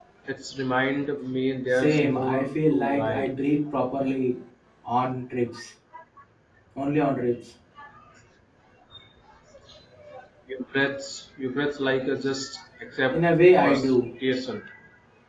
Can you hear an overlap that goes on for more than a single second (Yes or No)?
Yes